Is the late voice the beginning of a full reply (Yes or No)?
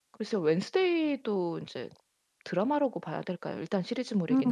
Yes